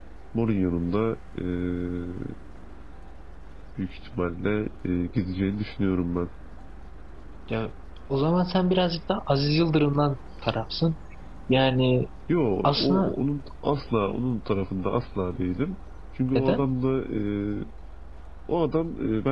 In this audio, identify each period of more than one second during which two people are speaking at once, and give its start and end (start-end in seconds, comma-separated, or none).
none